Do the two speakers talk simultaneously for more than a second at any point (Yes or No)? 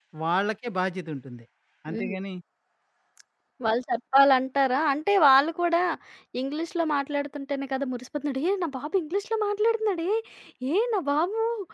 No